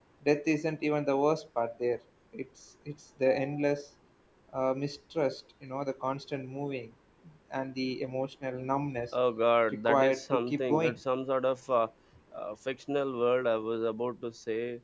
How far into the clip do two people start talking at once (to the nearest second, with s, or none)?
10 s